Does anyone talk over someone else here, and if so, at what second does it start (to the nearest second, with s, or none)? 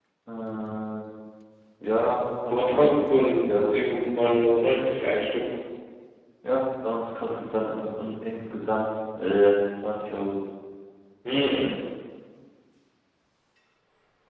2 s